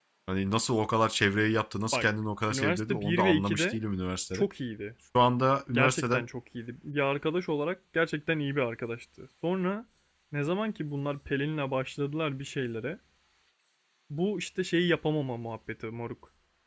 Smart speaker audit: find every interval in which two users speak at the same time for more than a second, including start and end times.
2.5-3.8

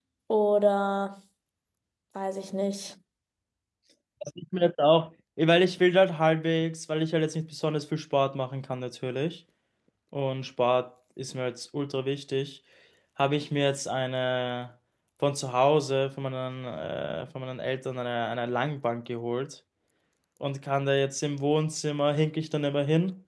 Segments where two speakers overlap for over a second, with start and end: none

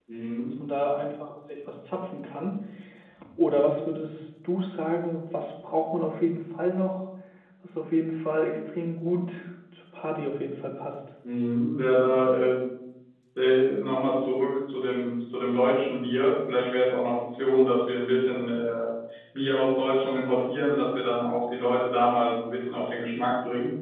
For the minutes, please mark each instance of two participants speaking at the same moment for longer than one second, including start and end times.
none

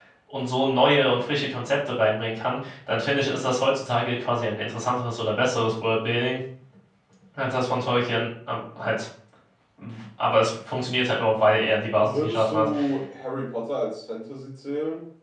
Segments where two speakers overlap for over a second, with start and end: 11.4-12.7

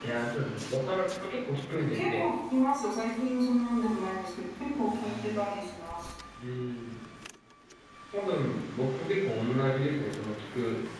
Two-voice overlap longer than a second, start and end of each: none

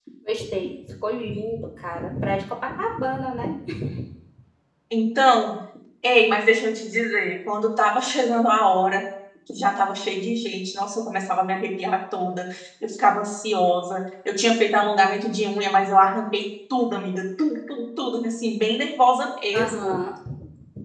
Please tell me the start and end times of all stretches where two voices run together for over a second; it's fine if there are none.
none

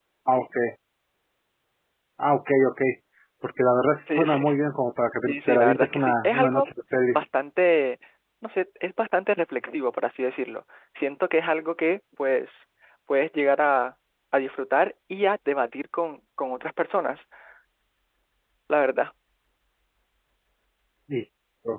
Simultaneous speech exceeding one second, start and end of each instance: 5.3-6.7

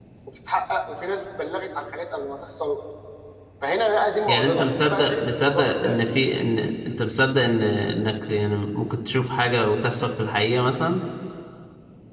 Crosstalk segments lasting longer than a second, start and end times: 4.3-6.0

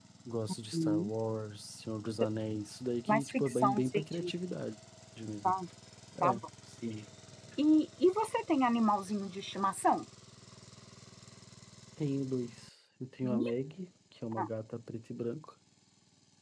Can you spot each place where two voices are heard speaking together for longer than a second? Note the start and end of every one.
3.1-4.3

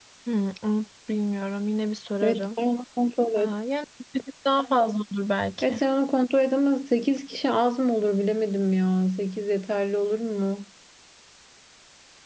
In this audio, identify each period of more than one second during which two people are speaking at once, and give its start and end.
none

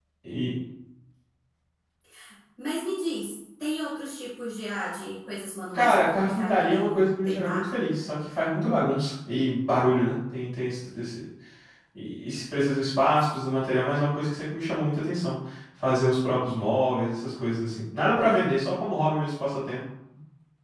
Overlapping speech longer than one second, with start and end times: 5.7-7.7

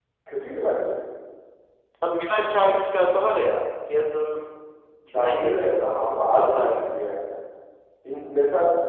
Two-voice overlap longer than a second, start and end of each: 5.1-6.8

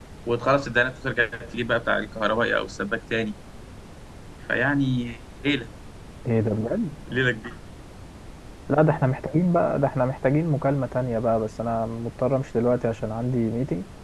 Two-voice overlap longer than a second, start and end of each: none

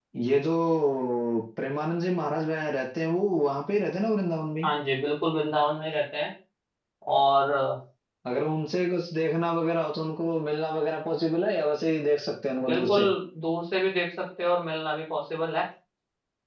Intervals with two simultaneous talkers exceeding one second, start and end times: none

